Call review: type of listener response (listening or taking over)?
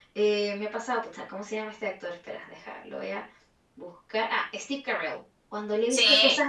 listening